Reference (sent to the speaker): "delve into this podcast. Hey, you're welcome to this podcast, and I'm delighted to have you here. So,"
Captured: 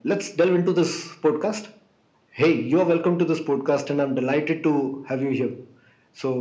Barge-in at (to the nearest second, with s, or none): none